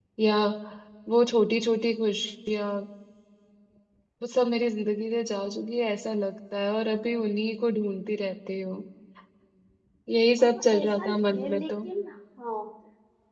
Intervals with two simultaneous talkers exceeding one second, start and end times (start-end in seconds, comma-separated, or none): 10.4-11.7